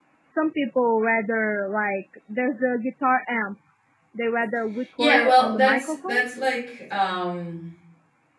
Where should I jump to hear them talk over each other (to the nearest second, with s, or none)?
5 s